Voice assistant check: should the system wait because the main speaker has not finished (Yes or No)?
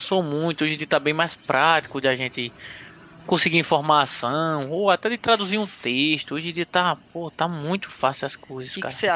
No